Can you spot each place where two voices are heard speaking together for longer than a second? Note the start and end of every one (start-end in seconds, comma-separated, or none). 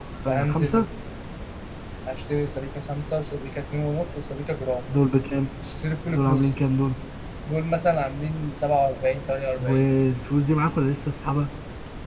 none